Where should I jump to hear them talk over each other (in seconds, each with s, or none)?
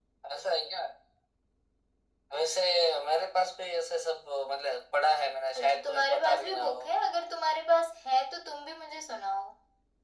5.6 s